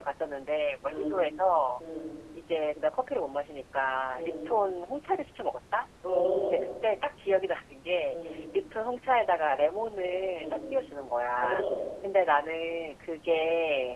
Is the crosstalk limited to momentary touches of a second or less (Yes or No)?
Yes